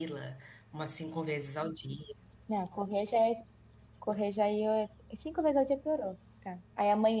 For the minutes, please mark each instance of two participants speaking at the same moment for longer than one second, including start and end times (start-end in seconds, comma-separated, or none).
none